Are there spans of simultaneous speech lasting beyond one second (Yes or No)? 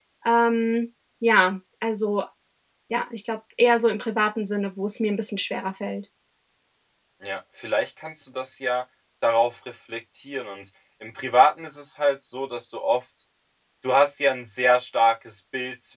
No